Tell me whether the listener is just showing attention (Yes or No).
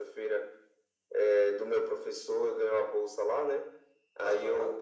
Yes